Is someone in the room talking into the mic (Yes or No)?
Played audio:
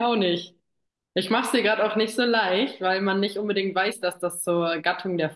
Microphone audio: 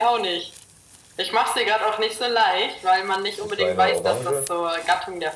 Yes